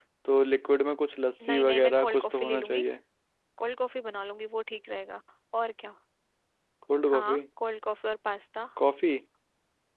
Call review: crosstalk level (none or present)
present